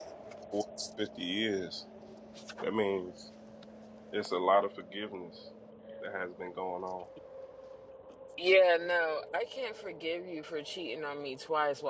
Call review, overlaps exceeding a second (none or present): none